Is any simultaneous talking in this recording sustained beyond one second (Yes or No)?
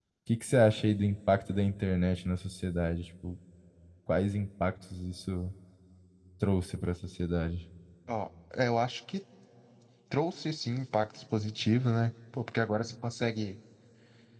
No